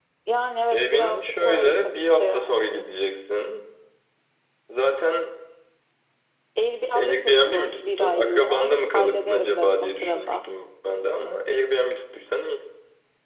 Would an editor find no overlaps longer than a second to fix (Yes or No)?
No